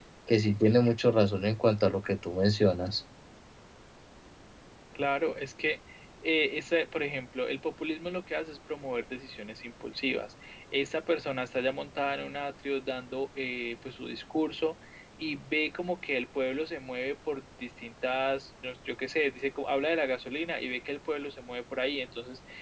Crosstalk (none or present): none